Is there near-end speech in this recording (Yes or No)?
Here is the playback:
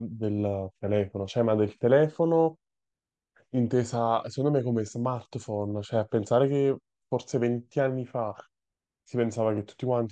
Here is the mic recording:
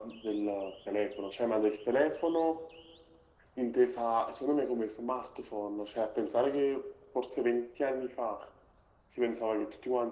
No